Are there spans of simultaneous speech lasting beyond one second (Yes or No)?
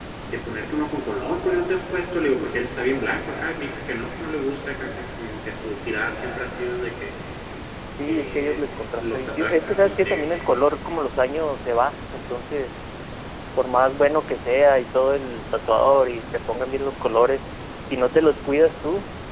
Yes